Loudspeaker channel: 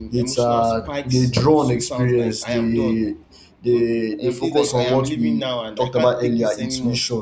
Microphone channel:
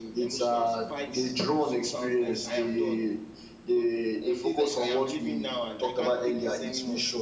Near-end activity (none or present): none